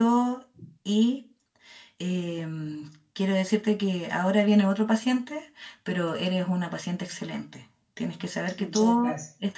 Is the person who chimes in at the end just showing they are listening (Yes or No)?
Yes